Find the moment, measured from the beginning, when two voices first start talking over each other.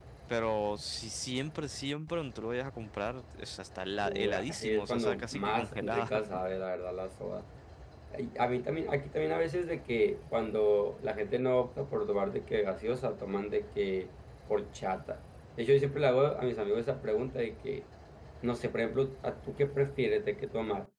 4 s

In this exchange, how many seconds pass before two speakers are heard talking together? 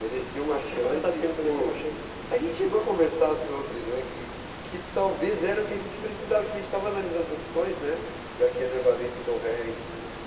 1 s

